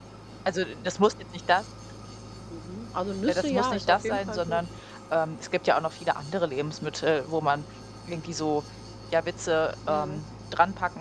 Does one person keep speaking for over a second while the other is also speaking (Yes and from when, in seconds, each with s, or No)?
Yes, from 3.3 s